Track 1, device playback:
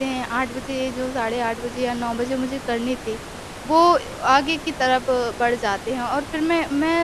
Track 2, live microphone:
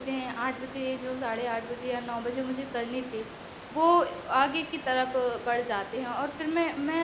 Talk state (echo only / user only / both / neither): echo only